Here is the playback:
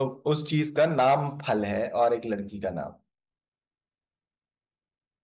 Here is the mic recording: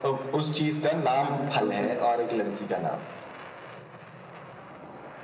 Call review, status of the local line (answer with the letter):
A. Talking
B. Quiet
A